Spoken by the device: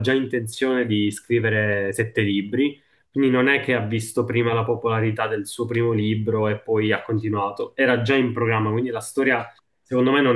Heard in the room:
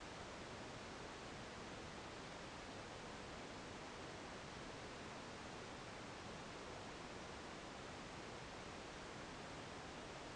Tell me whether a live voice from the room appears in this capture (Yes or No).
No